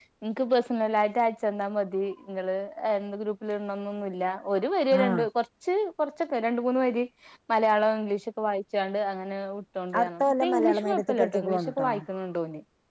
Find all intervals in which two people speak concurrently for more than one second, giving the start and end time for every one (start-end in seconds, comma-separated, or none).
10.0-11.9